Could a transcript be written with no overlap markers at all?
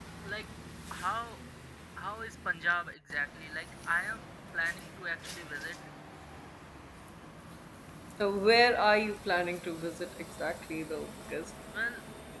Yes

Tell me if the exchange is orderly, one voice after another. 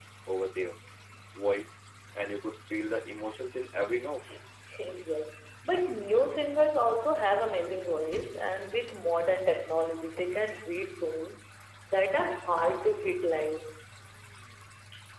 Yes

